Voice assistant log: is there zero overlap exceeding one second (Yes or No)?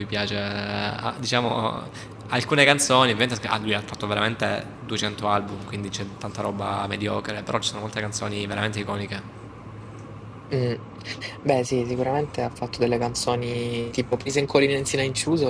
Yes